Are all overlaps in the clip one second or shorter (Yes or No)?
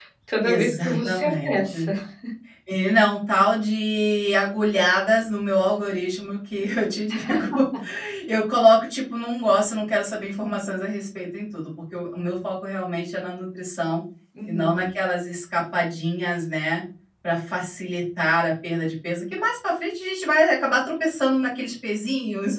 No